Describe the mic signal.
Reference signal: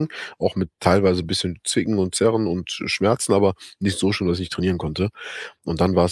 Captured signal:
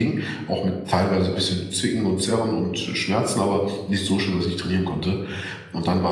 echo only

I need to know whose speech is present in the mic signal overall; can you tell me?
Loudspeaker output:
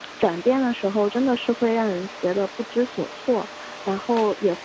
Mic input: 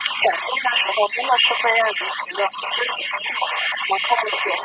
echo only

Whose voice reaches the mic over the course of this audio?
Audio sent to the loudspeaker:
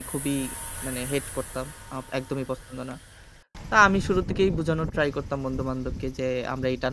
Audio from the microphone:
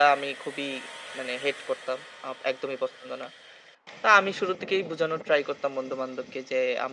echo only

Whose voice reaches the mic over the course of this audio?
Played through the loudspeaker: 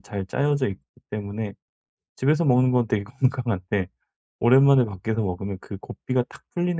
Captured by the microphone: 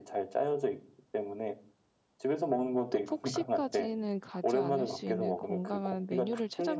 both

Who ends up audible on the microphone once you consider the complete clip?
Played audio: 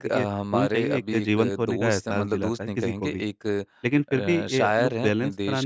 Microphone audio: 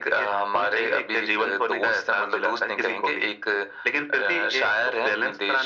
echo only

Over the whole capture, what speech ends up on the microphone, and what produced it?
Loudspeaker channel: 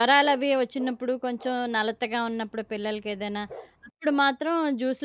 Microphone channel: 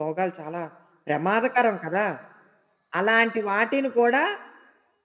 user only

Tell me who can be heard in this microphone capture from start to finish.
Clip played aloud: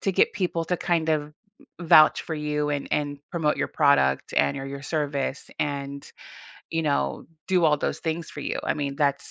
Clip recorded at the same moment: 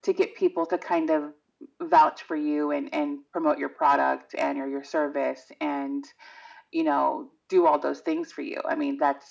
echo only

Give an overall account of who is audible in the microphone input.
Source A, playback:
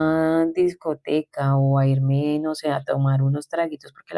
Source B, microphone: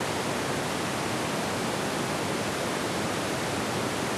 neither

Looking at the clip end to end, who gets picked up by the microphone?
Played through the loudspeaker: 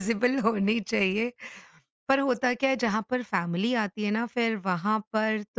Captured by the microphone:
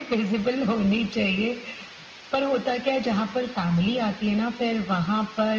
echo only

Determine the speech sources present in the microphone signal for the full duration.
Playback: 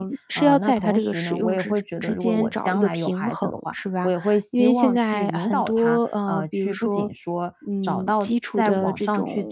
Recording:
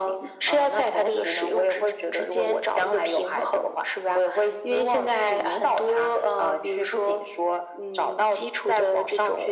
echo only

